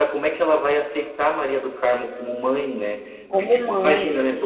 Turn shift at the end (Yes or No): No